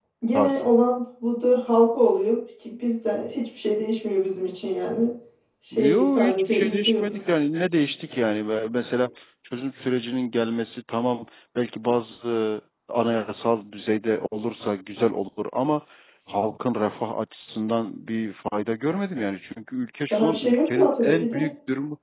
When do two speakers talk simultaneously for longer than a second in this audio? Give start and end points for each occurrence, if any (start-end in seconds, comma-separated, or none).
5.7-7.2, 20.1-21.5